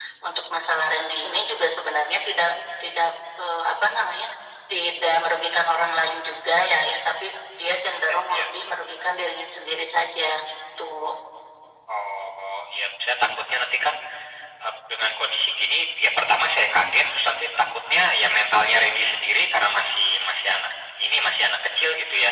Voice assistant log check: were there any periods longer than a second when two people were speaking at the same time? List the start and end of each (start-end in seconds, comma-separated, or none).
none